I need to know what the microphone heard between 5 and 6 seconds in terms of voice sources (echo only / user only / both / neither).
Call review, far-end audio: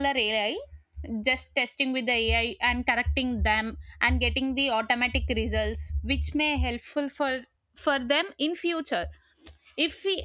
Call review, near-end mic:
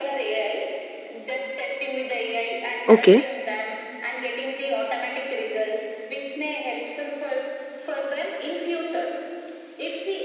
echo only